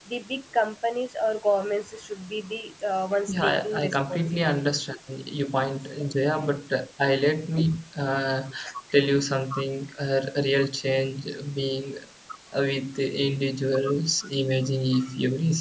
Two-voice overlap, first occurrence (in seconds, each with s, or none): 3.3 s